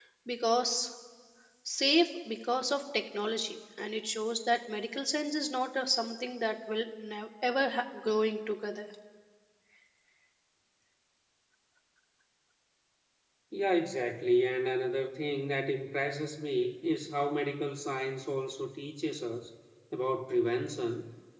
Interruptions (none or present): none